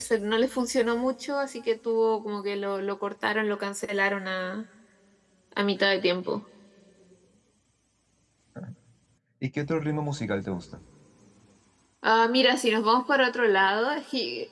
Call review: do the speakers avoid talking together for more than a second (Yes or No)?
Yes